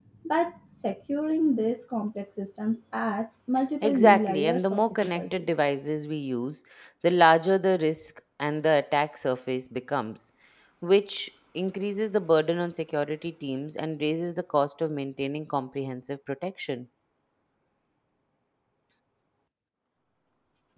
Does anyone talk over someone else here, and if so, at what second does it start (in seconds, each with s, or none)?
3.8 s